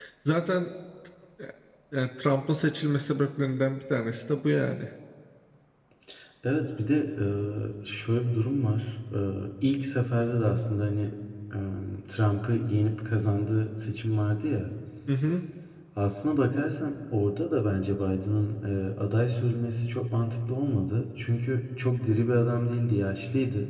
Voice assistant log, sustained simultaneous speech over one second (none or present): none